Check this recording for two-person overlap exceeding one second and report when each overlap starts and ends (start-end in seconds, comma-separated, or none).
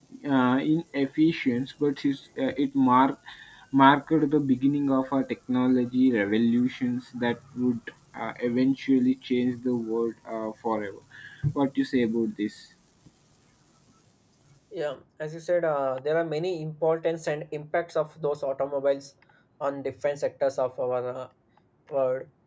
none